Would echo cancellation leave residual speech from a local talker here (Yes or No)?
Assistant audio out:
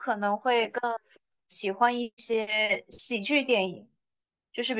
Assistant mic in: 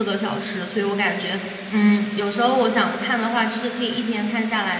Yes